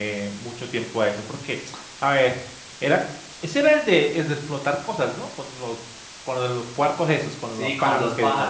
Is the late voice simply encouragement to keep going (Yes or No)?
No